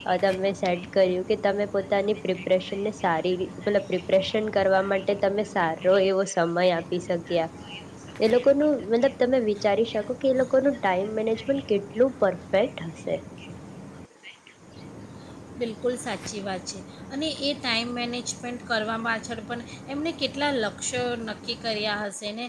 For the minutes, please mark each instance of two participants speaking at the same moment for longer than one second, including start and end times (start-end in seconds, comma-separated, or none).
none